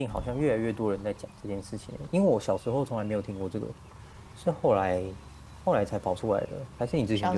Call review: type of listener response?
taking over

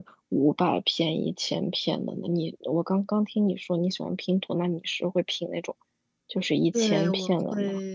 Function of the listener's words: taking over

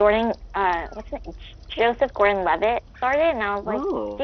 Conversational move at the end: listening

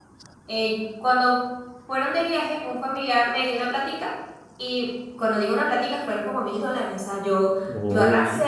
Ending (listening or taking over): listening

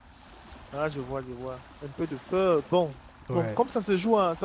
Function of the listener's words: listening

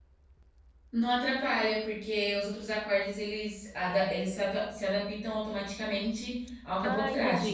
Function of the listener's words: taking over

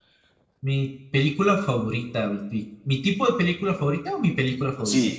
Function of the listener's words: taking over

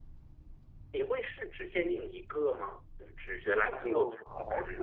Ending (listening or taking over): taking over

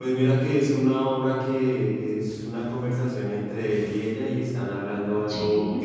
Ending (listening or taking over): listening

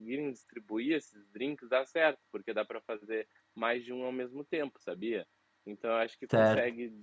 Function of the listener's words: listening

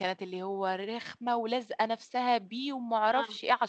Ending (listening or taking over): listening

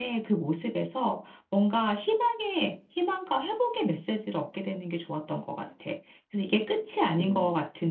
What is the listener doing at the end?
listening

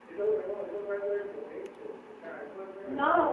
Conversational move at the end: taking over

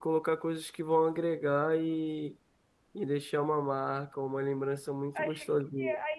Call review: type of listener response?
taking over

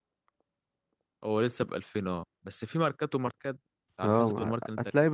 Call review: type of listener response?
taking over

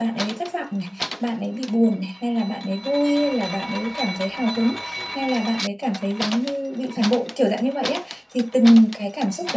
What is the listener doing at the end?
listening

